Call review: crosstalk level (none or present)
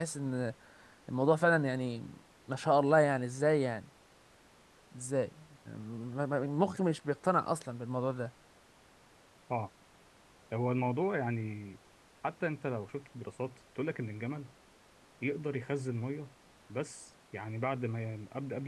none